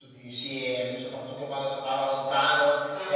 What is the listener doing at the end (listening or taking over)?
listening